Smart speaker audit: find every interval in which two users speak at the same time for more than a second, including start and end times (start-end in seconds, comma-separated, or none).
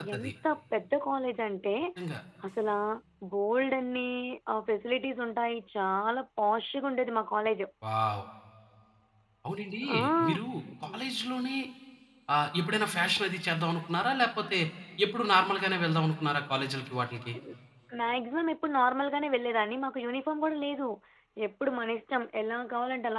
none